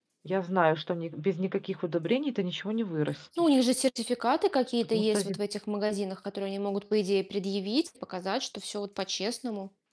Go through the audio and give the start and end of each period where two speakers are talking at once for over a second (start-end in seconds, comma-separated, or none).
none